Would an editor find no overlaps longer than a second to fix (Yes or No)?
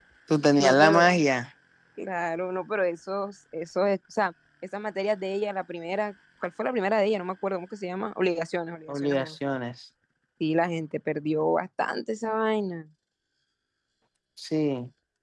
Yes